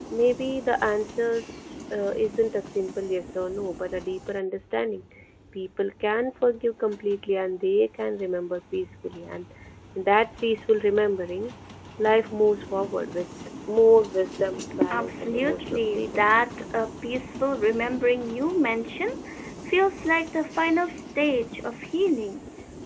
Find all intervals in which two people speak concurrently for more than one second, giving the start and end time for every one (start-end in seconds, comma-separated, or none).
14.9-16.2